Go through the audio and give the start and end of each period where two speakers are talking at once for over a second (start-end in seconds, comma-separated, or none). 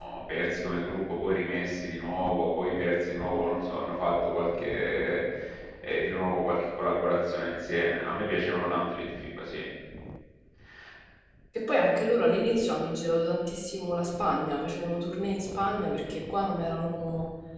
none